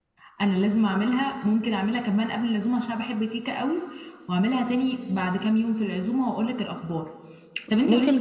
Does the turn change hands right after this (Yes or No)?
No